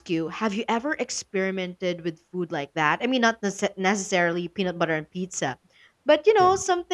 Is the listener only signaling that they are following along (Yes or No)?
Yes